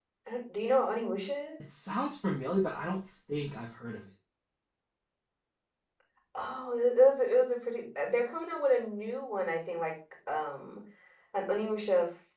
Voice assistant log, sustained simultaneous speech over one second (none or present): none